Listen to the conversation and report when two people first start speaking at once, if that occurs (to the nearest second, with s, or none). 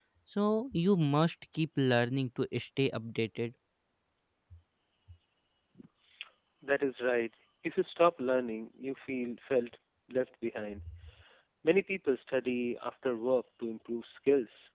none